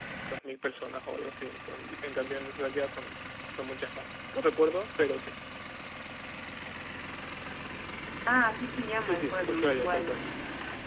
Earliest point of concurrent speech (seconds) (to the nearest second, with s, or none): 9 s